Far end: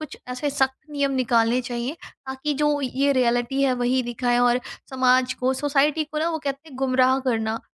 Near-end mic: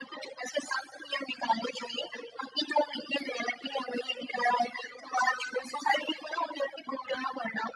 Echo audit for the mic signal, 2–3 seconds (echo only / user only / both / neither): echo only